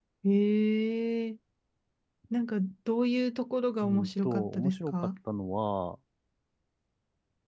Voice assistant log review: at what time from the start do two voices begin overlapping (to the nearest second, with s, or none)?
4 s